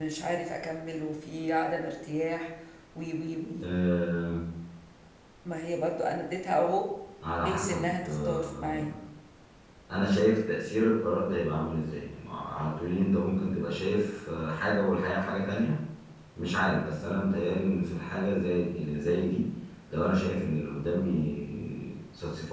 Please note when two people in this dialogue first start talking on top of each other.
7 s

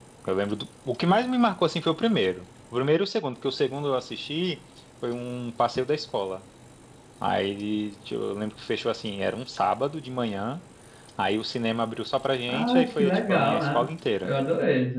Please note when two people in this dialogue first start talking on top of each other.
12 s

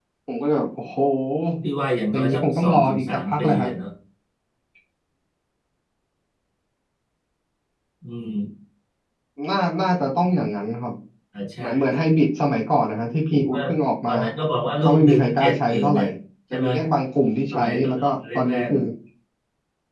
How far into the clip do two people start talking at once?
2 s

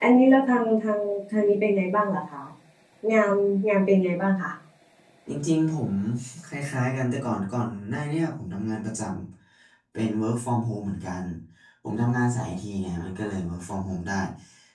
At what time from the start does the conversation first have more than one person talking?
none

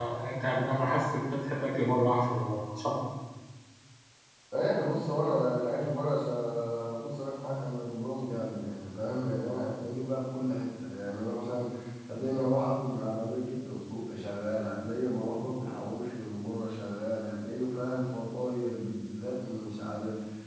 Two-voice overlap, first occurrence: none

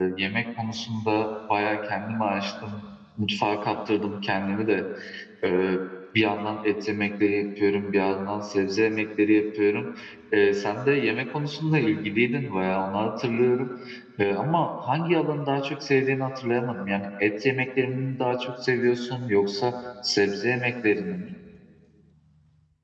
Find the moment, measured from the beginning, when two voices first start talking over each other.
none

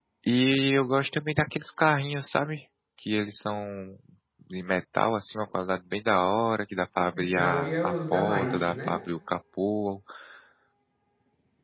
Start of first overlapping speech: 7 s

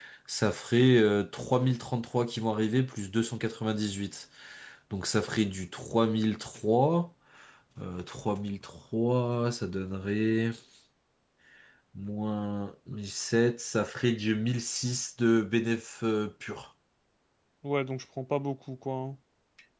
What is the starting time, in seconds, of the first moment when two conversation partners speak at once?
none

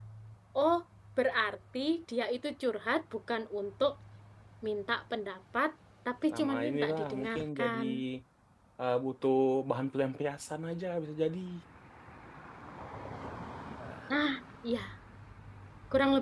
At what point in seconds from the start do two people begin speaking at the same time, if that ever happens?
6 s

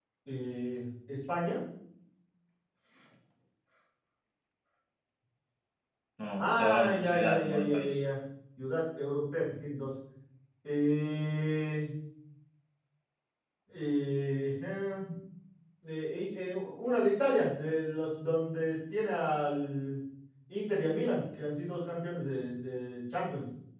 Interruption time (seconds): 6 s

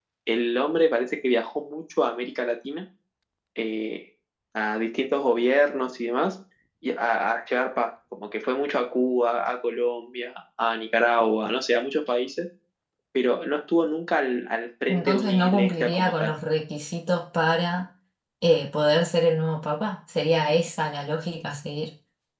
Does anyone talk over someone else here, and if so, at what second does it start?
15 s

